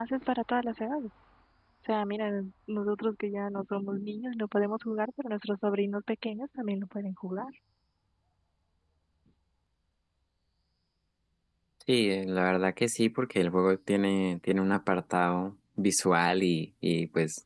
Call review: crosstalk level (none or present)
none